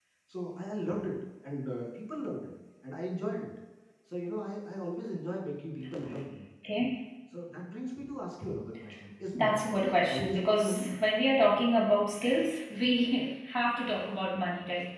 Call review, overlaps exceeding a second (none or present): present